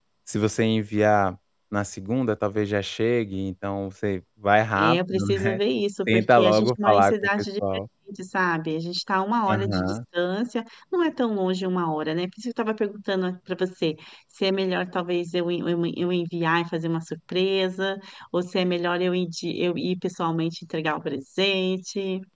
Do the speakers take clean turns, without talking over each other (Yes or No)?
No